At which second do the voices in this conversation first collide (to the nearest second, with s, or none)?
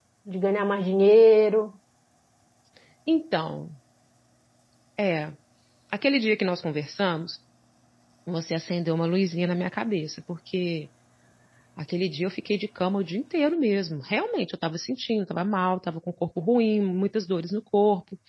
none